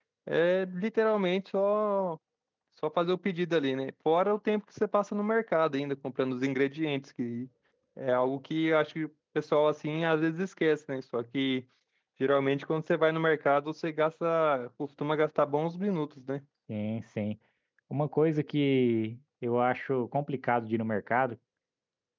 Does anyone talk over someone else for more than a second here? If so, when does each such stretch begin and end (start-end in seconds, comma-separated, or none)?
none